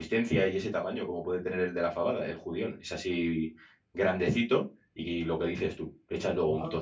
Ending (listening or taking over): listening